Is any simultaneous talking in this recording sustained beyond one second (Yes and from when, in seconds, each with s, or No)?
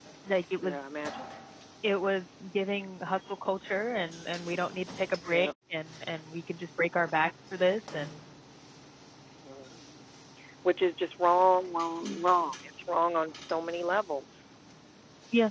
No